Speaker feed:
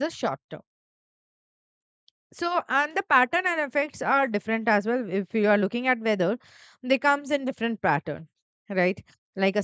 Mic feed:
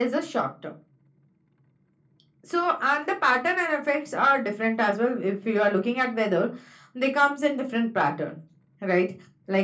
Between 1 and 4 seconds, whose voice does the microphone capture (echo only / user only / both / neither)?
echo only